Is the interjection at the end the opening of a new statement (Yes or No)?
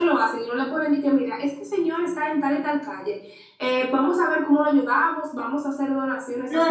Yes